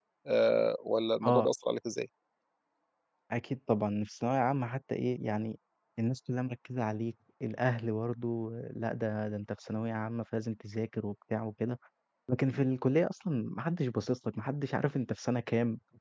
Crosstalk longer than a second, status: none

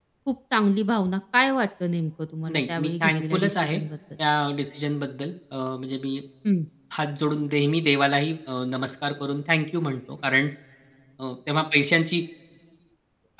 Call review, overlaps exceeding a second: present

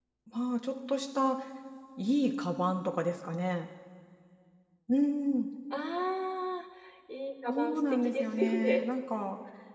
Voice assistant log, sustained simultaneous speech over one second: present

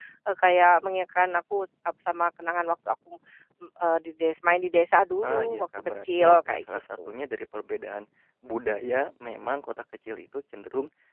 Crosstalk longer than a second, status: present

